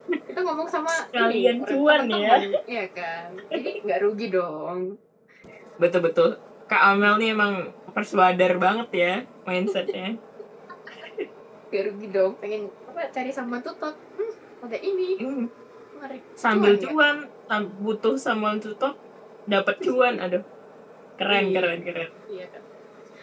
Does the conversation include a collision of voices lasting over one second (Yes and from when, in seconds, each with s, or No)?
Yes, from 0.9 s